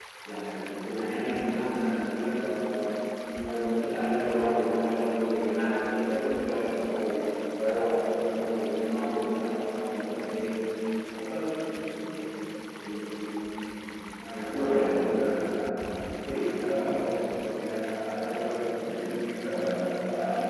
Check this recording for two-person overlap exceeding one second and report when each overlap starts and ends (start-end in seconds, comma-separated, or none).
14.3-15.8